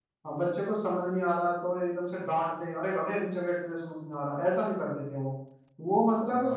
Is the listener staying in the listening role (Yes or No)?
No